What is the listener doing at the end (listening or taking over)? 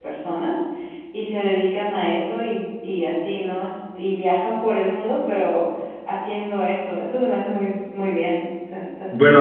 taking over